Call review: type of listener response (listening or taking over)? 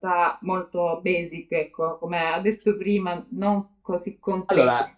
listening